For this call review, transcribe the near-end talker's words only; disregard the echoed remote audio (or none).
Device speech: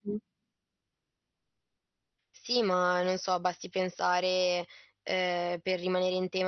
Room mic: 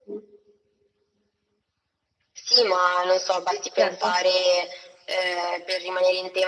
Sì, certo.